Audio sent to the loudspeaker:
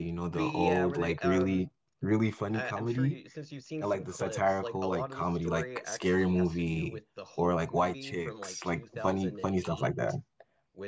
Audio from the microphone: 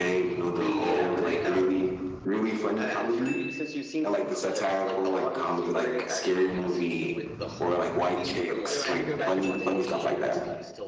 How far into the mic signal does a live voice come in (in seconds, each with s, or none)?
8.7 s